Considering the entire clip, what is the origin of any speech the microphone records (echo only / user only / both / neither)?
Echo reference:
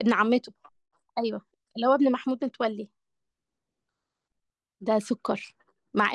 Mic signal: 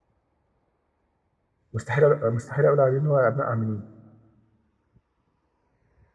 user only